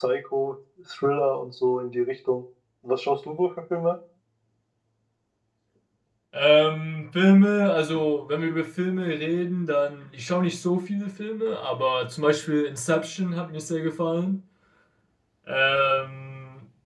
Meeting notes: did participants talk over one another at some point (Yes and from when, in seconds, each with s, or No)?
No